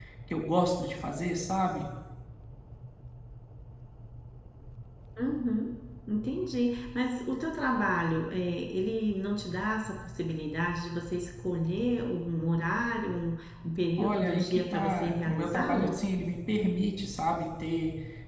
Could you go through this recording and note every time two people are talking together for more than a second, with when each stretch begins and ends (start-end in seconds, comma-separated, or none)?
14.0-16.0